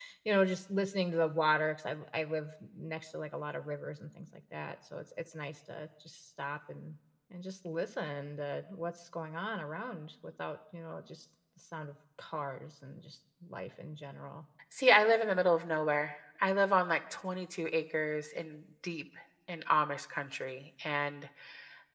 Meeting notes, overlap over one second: none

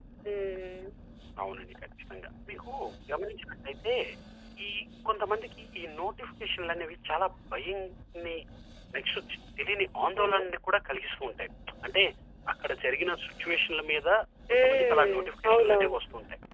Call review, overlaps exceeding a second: present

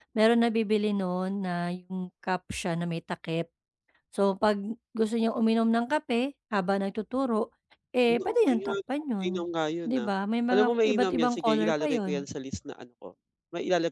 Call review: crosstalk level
present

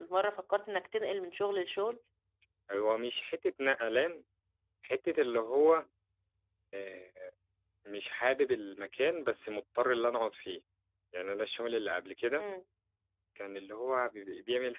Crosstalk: none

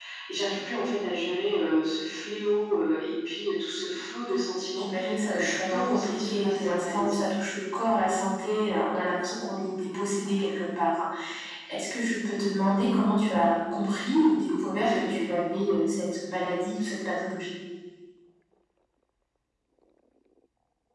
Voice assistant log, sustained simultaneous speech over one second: present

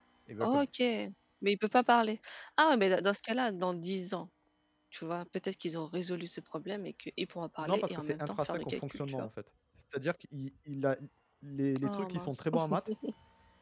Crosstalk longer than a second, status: present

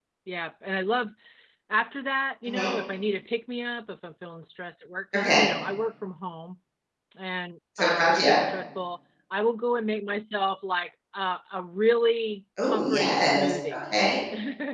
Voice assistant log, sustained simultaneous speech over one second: present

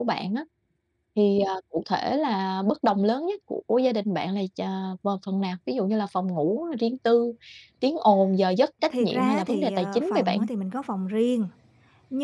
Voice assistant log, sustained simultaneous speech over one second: present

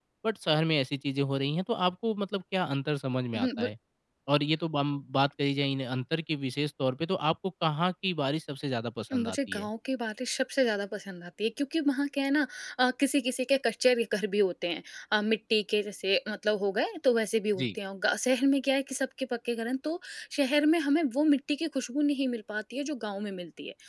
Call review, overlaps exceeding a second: none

